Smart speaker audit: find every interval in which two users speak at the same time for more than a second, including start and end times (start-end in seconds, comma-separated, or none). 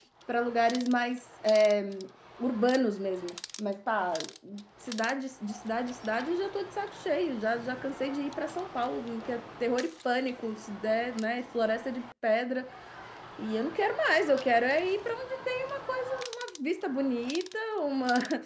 none